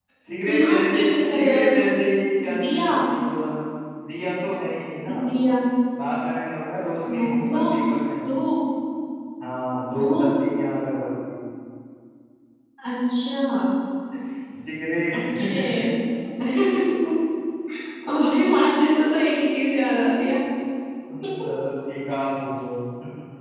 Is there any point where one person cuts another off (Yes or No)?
Yes